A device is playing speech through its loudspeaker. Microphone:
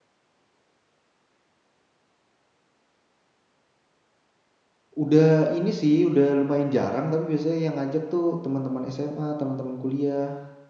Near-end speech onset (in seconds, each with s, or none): 5.0 s